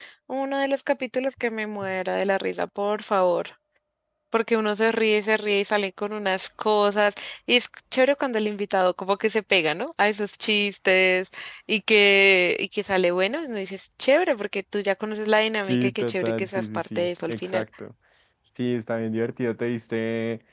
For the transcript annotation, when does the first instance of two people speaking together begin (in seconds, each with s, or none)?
15.7 s